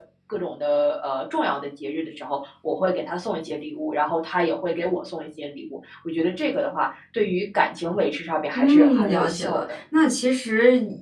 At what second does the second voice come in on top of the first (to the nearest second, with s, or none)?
9 s